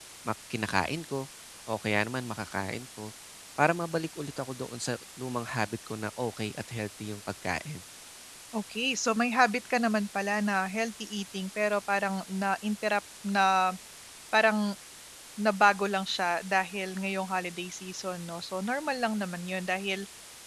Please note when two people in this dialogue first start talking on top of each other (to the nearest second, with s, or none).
none